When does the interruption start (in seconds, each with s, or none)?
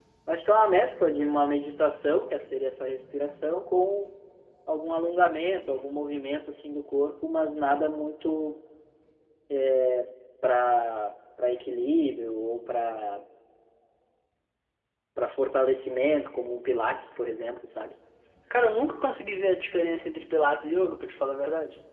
none